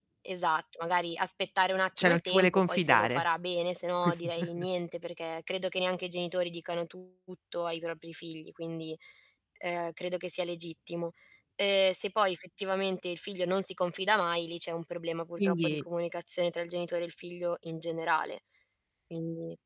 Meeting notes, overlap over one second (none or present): present